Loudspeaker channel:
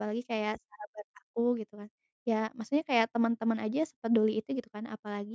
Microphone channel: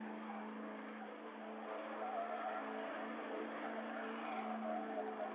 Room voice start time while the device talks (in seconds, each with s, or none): none